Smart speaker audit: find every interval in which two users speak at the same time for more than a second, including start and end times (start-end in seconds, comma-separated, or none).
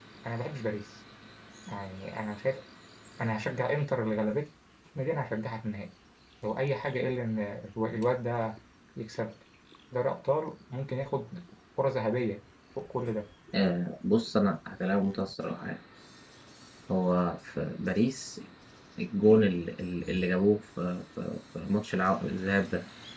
none